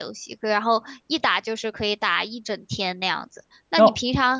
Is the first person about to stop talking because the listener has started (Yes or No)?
No